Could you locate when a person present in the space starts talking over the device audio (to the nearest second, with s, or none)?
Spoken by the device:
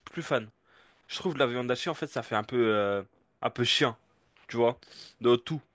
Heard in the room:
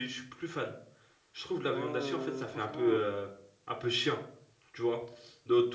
2 s